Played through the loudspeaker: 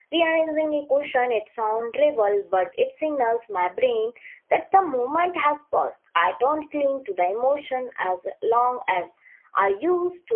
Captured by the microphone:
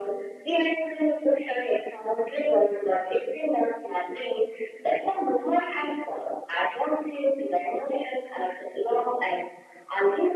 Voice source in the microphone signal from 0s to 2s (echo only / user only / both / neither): echo only